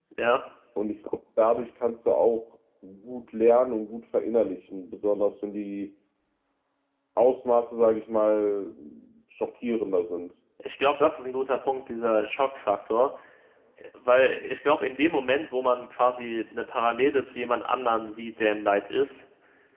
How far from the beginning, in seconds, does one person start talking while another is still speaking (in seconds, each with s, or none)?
none